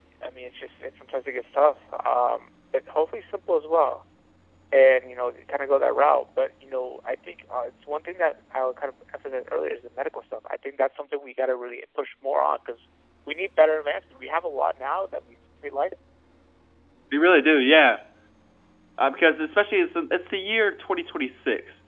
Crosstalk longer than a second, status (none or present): none